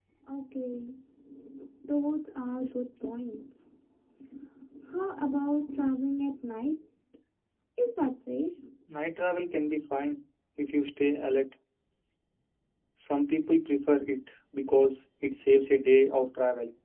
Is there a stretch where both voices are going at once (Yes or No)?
No